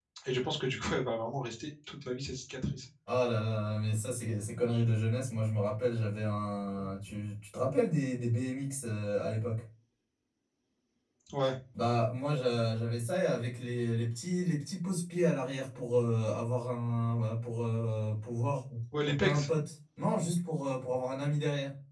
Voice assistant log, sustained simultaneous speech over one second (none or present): none